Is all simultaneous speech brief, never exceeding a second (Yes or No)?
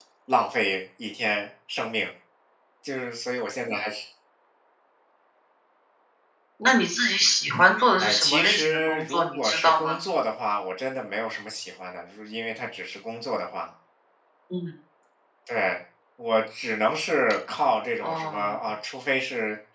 No